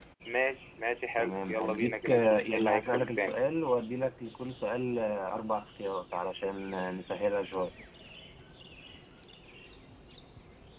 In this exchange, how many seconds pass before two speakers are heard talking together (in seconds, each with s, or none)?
1.2 s